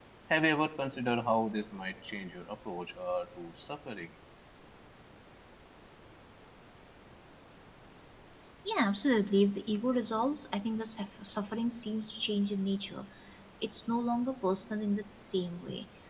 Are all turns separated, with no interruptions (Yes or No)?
Yes